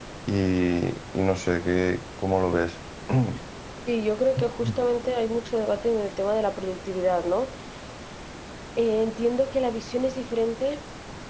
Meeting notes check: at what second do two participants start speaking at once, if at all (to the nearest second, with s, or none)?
none